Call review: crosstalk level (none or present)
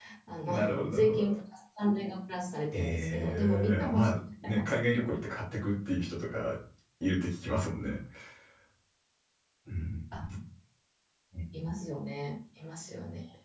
present